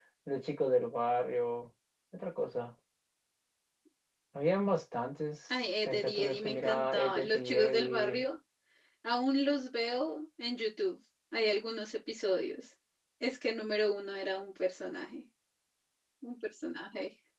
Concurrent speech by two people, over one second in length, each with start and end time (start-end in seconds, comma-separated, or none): 5.5-8.2